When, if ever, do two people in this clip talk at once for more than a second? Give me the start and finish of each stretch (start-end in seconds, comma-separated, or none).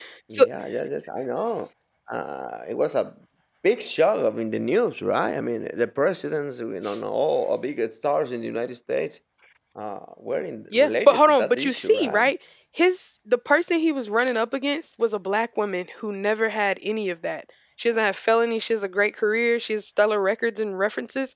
10.7-12.3